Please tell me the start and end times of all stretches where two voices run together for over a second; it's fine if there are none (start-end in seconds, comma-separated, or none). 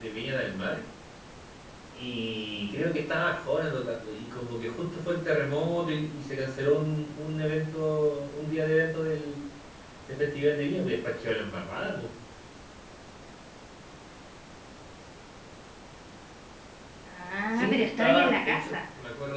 17.5-18.8